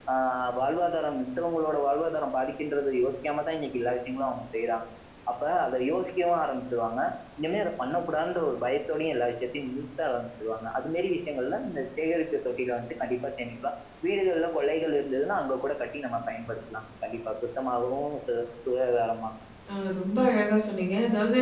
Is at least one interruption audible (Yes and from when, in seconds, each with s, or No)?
No